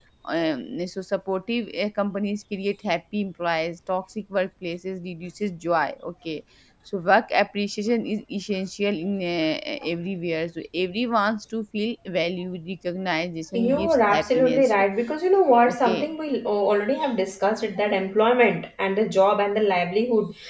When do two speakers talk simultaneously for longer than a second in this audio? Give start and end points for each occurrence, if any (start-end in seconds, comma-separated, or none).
13.5-14.8